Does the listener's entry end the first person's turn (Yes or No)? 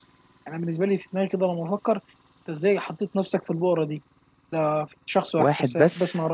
No